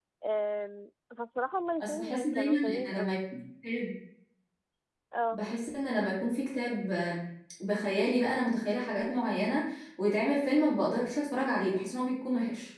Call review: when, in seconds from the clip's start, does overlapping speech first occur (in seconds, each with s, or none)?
1.8 s